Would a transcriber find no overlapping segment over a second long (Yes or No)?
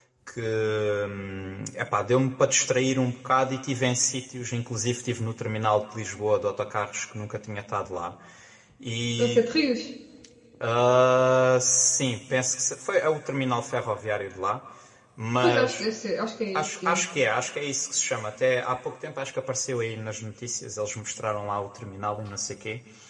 Yes